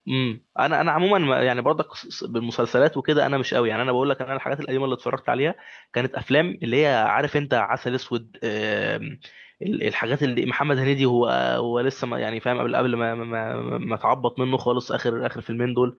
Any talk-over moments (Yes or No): No